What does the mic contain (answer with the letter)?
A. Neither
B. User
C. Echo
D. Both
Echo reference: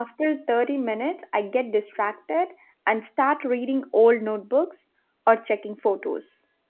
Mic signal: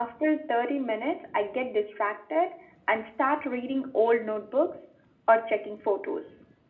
C